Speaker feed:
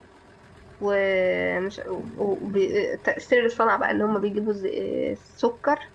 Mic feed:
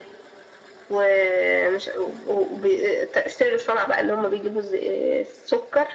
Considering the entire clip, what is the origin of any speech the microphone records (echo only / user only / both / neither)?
echo only